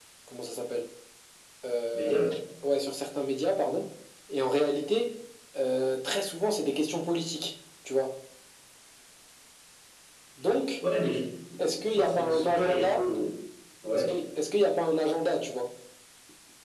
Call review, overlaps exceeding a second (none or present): present